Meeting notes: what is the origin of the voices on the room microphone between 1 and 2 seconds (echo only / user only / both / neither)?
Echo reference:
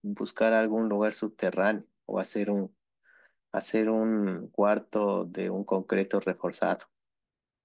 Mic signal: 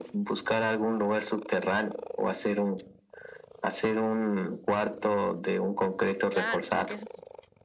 echo only